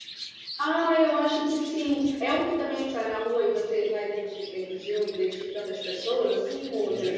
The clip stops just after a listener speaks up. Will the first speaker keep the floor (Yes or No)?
No